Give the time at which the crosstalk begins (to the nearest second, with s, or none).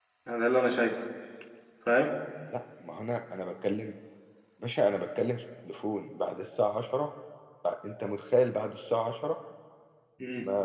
none